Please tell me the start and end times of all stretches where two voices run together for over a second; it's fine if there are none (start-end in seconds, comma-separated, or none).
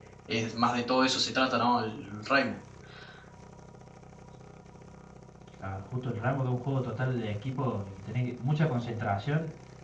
none